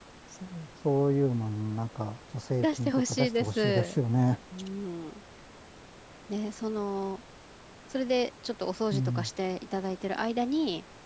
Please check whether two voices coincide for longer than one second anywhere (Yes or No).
Yes